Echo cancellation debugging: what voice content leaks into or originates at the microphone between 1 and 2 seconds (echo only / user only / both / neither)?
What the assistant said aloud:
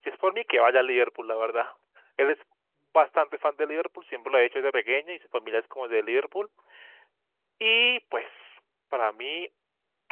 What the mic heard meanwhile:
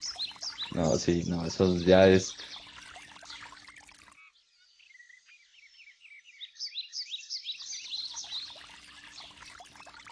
user only